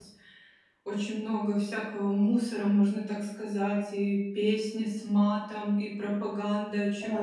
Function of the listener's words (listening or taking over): taking over